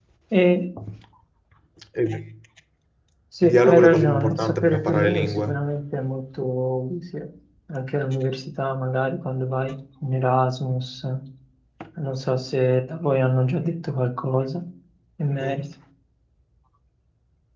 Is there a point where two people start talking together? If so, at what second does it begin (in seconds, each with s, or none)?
3.4 s